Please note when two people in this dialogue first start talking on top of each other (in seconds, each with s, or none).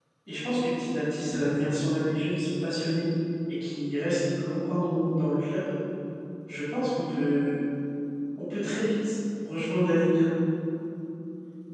none